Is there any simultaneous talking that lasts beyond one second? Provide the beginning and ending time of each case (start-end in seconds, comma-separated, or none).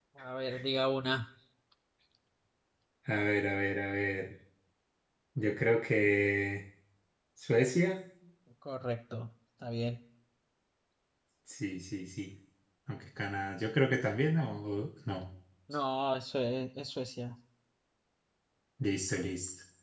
none